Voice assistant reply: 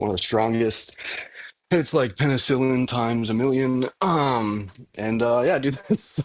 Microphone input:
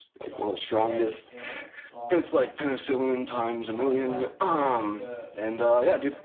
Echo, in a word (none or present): present